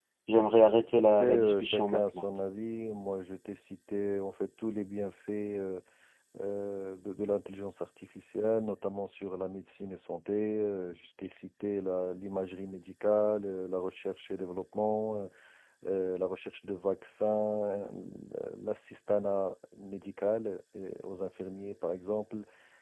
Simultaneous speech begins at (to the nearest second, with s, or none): 1 s